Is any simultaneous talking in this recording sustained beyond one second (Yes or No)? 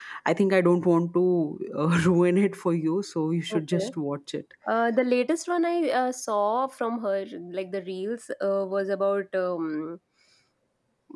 No